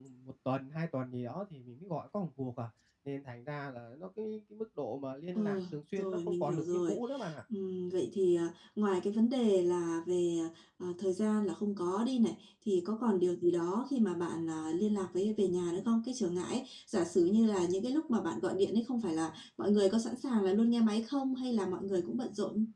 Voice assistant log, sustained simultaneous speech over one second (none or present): present